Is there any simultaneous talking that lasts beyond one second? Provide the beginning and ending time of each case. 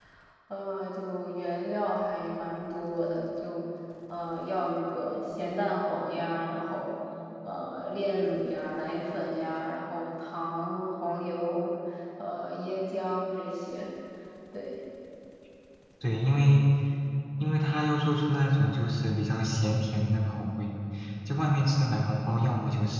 none

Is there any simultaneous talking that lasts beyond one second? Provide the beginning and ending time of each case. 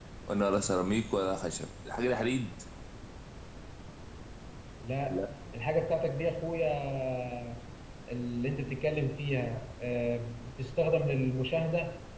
none

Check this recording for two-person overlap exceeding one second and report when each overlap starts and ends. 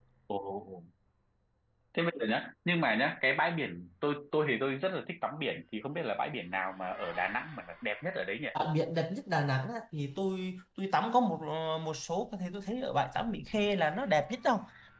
none

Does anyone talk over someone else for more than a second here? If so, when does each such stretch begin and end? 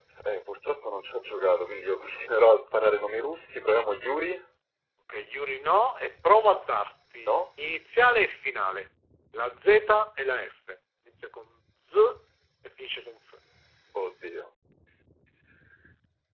none

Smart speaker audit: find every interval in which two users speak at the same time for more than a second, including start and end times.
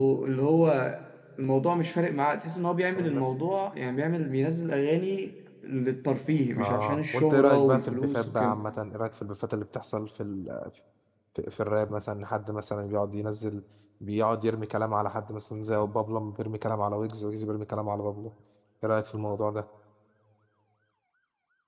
6.6-8.6

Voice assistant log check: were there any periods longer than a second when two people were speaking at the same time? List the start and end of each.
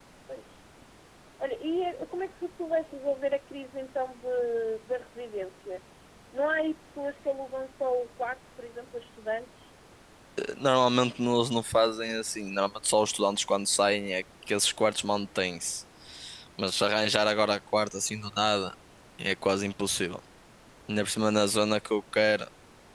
none

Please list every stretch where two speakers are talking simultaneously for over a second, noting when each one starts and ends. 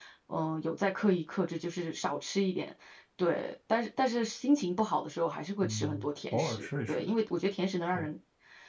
5.6-7.1

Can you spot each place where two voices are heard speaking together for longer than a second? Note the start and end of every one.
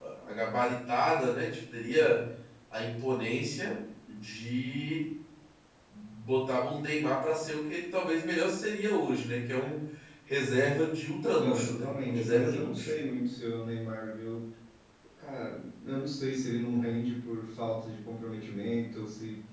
11.4-12.9

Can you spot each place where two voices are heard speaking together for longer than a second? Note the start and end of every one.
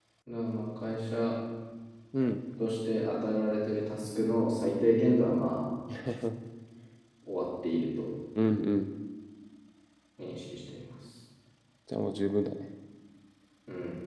none

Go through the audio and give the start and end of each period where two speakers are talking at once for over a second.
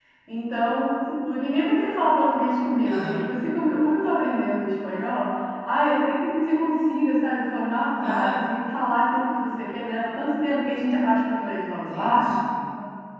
none

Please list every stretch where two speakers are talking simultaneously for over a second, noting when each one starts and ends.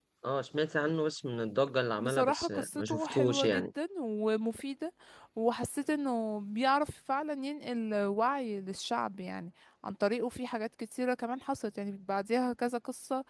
2.0-3.7

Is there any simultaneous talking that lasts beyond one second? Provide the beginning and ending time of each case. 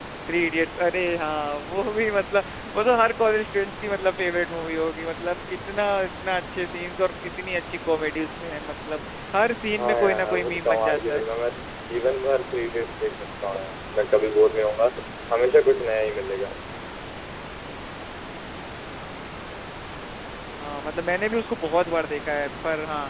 9.8-11.2

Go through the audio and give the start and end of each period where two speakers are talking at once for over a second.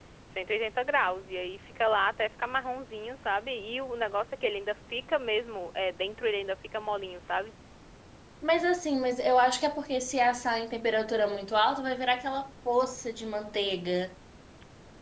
none

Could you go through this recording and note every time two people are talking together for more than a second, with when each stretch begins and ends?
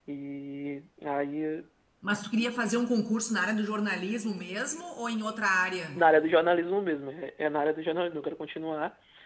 none

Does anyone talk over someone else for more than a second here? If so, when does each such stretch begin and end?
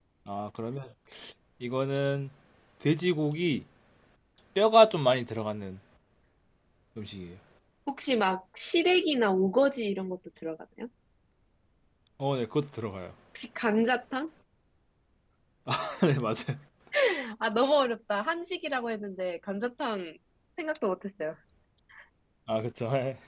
none

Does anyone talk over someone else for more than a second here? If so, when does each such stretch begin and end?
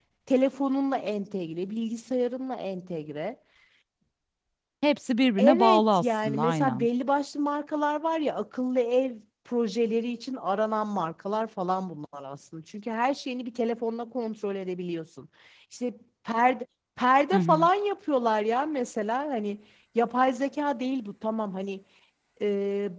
5.4-6.9

